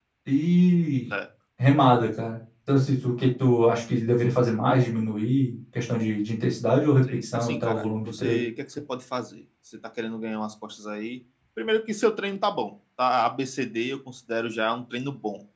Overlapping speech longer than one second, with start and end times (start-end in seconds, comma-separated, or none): 7.1-8.4